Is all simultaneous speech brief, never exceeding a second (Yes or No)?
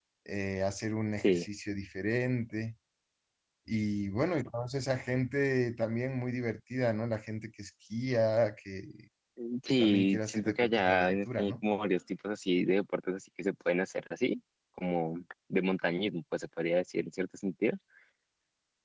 No